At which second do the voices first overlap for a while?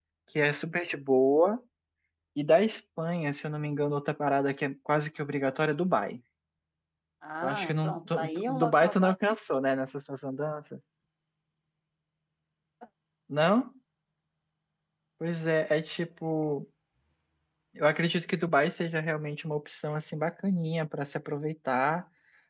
7.4 s

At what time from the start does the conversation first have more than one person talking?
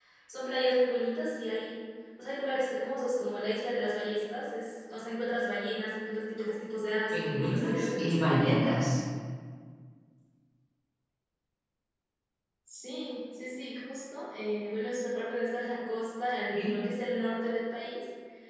7.1 s

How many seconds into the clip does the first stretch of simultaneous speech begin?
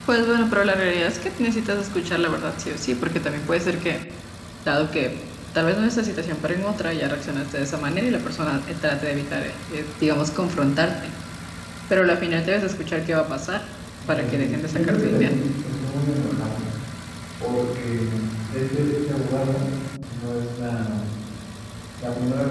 14.2 s

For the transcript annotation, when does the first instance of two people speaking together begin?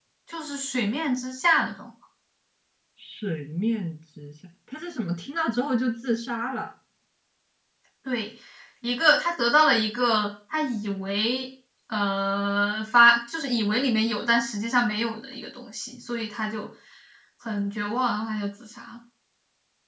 none

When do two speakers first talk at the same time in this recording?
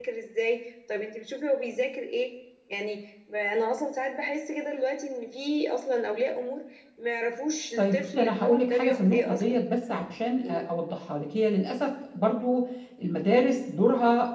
7.8 s

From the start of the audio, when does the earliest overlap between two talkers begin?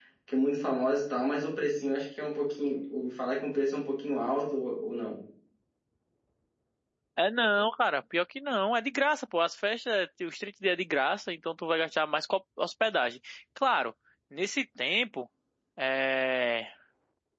none

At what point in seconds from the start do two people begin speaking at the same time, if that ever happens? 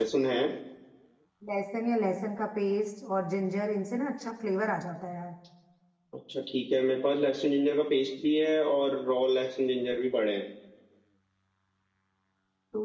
none

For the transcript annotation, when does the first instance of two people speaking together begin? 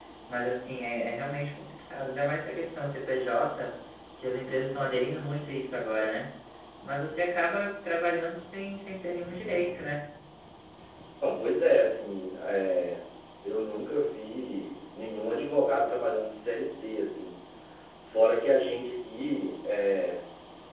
none

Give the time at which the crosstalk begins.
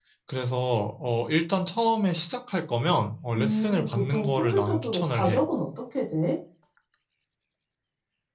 3.4 s

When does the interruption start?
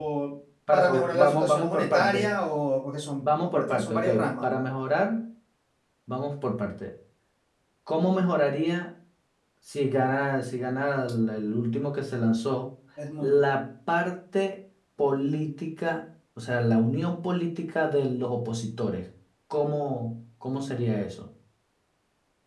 0.7 s

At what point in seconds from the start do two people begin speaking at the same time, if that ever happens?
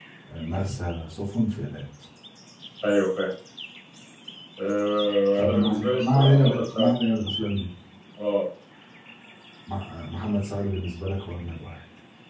5.4 s

